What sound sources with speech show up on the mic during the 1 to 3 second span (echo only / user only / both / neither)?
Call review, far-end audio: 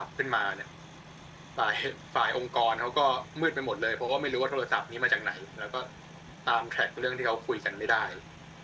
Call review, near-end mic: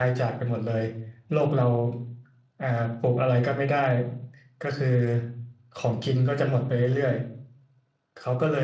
user only